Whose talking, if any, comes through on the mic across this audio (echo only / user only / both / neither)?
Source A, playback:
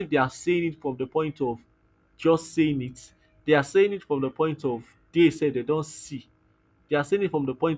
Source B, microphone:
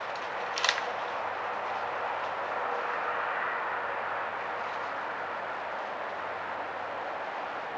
neither